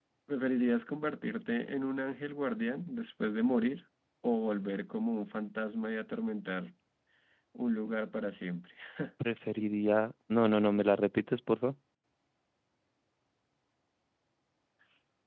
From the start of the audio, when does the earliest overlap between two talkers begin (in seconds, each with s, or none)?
none